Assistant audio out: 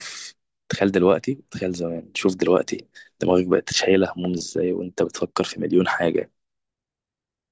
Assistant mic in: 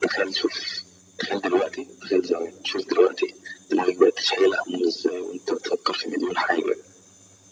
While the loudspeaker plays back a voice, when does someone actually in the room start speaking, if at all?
none

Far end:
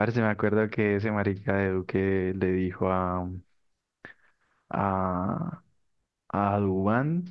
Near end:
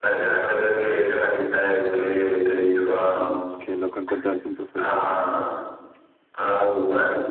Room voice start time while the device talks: 3.2 s

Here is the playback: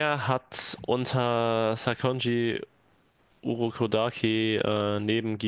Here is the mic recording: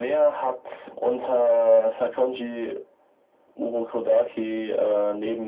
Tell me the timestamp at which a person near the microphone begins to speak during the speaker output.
none

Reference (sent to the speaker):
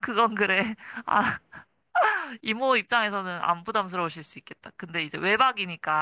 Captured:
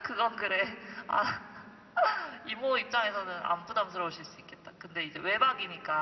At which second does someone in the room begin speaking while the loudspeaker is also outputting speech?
none

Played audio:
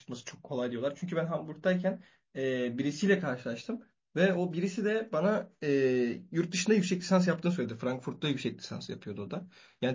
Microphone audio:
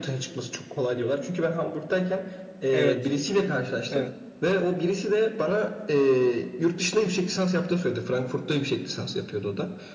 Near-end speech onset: 2.7 s

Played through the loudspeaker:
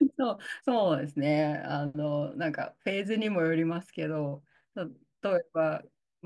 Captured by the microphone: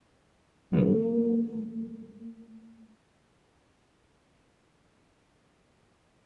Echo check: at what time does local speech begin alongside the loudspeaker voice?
0.7 s

